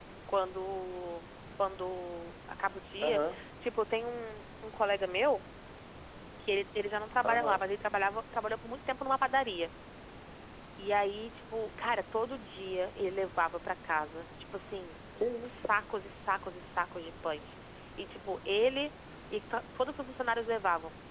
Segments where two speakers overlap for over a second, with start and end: none

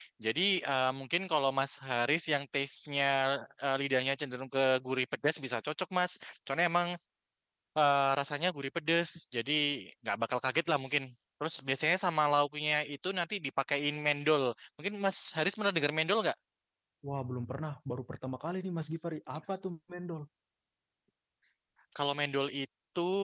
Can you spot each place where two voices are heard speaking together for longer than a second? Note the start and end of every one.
none

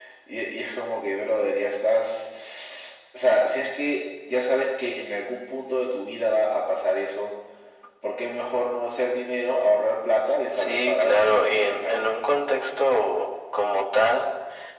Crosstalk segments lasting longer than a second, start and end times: 10.5-12.1

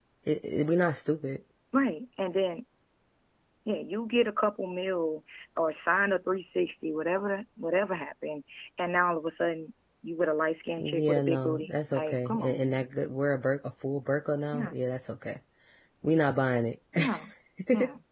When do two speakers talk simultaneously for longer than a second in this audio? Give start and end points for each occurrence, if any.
10.8-12.8

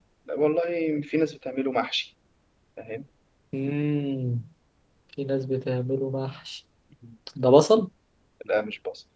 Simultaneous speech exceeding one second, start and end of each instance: none

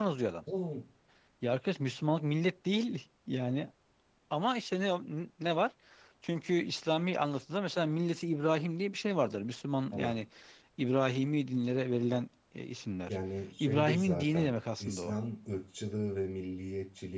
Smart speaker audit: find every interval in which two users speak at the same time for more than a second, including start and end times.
13.6-15.1

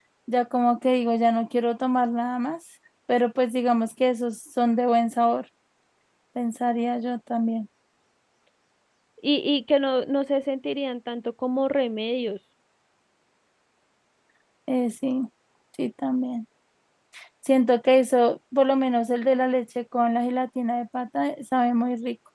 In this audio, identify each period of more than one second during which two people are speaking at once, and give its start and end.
none

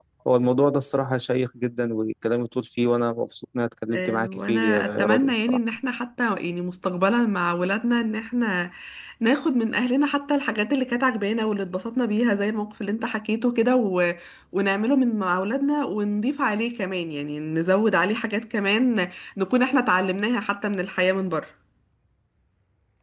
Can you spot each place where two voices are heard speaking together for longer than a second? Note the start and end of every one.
3.9-5.6

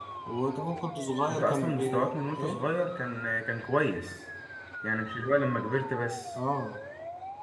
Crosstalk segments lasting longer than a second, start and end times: 1.3-2.6

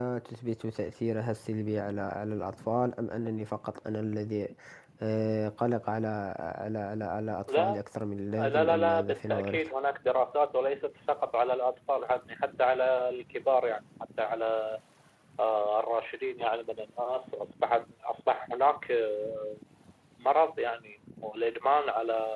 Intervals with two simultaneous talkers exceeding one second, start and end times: 8.4-9.7

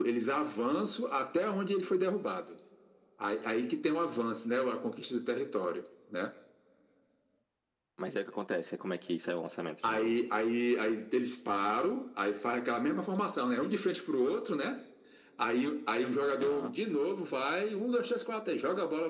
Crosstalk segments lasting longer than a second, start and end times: none

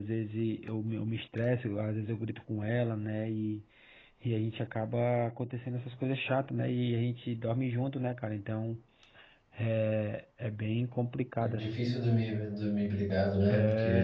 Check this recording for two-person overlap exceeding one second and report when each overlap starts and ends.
none

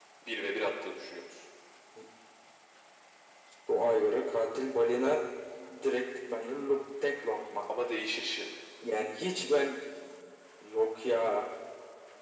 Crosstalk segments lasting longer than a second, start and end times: none

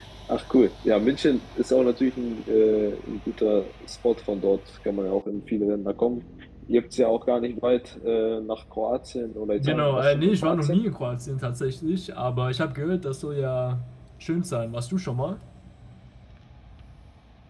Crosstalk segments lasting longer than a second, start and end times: 9.6-10.8

